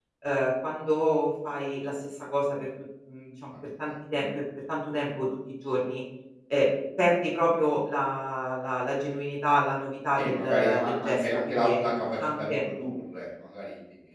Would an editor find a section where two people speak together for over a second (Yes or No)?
Yes